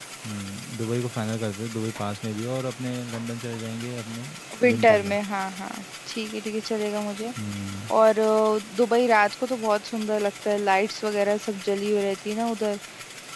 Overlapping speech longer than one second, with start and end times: none

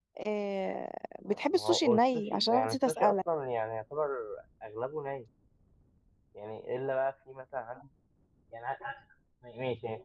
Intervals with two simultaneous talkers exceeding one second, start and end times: 1.5-3.2

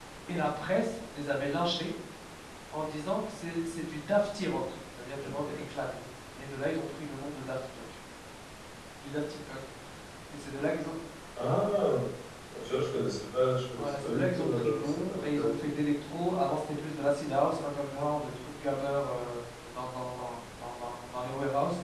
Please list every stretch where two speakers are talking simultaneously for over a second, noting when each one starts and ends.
13.8-15.5

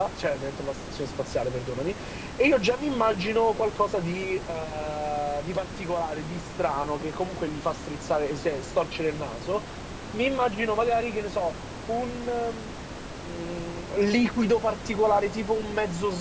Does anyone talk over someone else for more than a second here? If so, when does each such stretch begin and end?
none

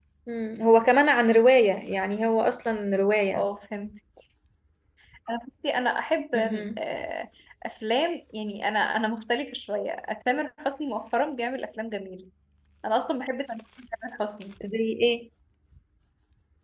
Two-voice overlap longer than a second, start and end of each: none

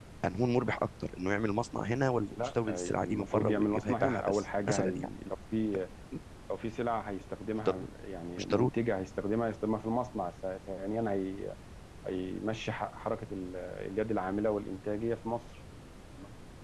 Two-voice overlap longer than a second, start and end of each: 2.4-5.1

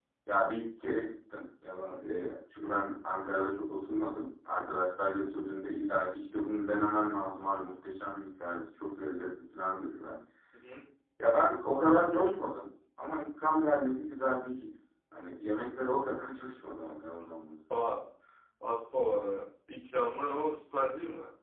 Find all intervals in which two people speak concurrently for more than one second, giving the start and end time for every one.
none

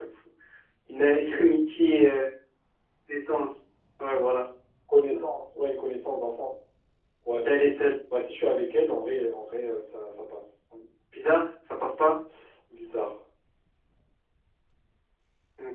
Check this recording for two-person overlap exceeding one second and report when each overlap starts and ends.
none

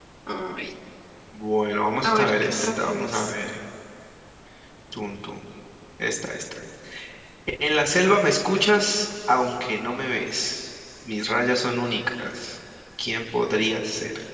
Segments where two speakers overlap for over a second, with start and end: 2.0-3.3

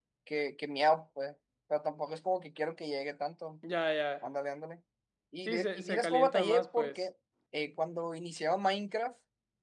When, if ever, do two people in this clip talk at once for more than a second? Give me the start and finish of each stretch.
5.5-7.0

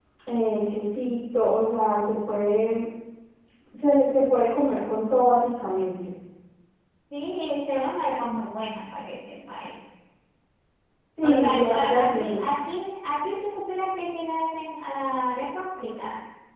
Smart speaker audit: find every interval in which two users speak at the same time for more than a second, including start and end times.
11.2-12.6

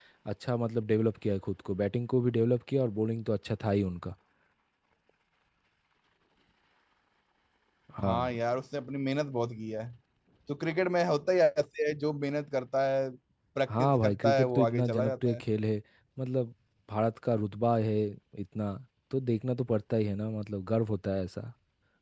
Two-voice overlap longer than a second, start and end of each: 13.7-15.4

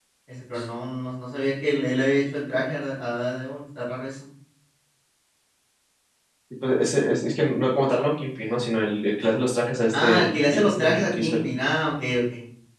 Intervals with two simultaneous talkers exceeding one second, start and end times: 9.9-11.5

